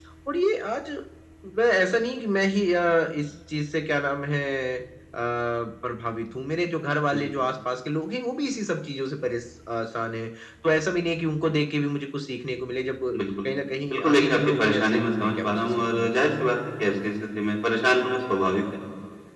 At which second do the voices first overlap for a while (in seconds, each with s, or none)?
13.9 s